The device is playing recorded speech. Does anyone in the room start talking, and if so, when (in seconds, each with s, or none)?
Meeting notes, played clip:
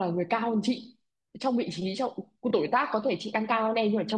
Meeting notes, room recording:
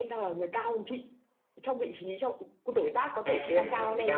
3.2 s